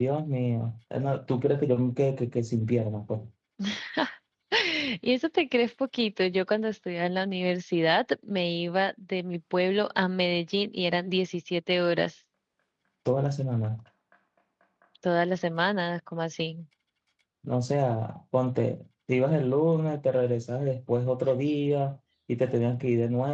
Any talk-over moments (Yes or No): No